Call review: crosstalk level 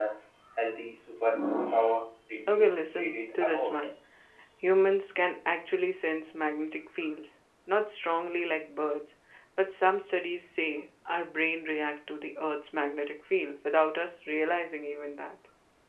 present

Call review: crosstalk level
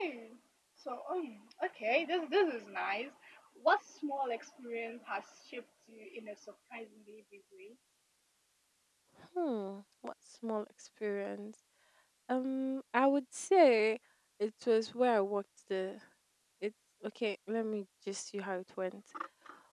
none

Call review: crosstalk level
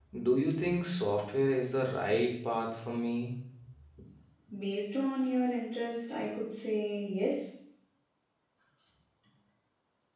none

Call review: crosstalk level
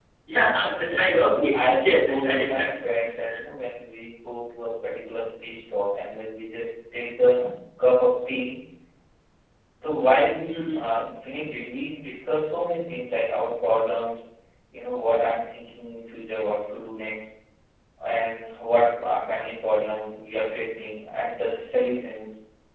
present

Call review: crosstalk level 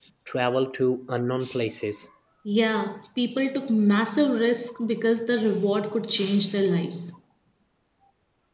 none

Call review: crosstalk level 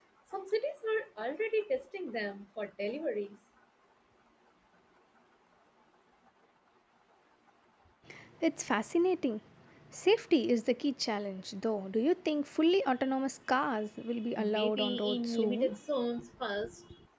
present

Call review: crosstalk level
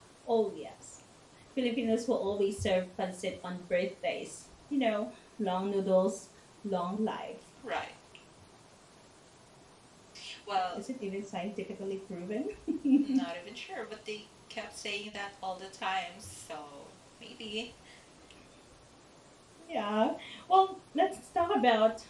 none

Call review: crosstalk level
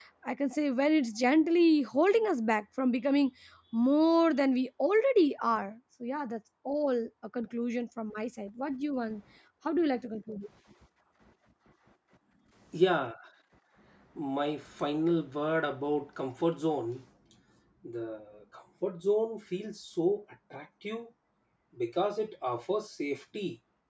none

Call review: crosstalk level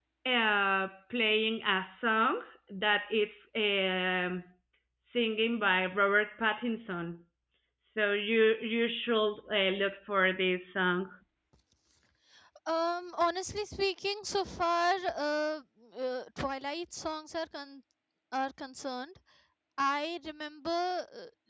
none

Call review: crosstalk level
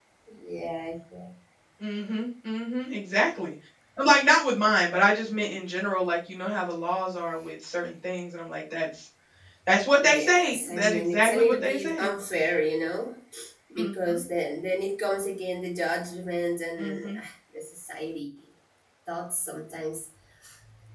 present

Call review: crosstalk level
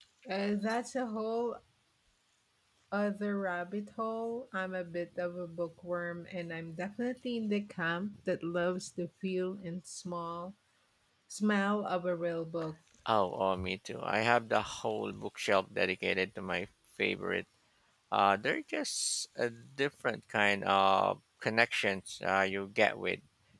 none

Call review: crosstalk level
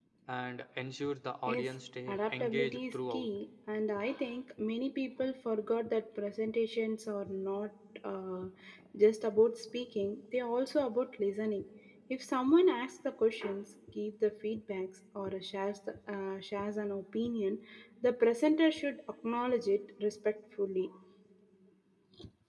present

